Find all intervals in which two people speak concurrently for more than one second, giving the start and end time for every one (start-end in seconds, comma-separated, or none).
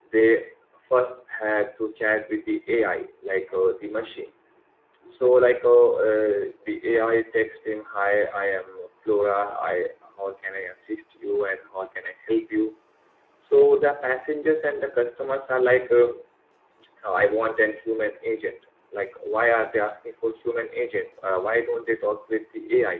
none